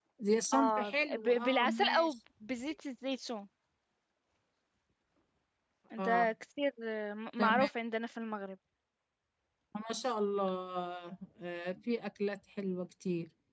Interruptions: present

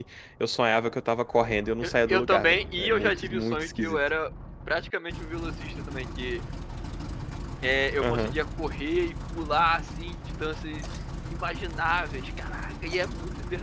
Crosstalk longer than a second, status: present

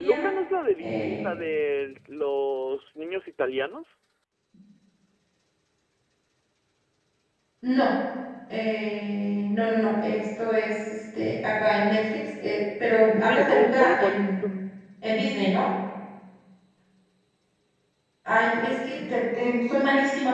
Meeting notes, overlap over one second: present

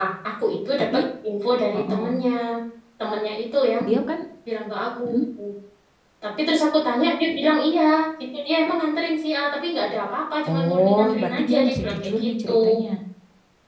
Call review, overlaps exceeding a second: present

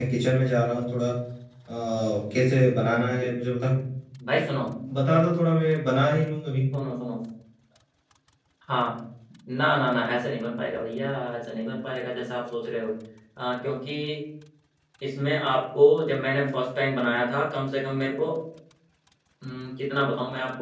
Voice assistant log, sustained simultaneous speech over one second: none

